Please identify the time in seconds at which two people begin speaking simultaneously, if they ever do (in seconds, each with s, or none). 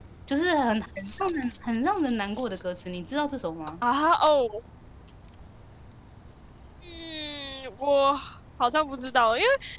none